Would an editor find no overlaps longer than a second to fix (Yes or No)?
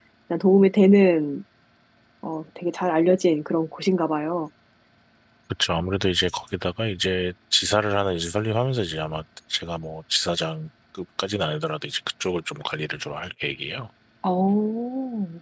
Yes